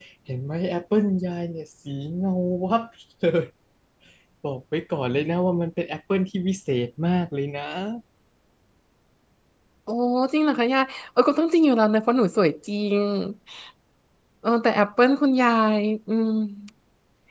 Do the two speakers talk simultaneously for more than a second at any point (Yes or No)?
No